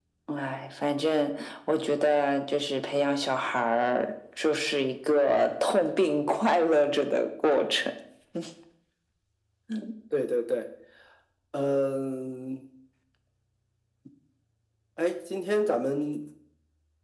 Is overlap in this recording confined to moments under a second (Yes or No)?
Yes